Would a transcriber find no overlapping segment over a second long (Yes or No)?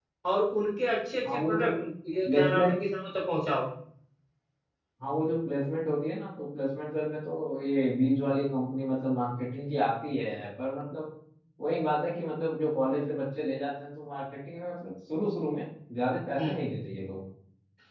Yes